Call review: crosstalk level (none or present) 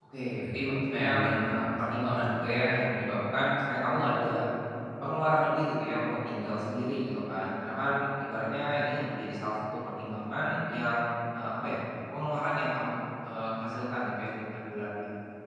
present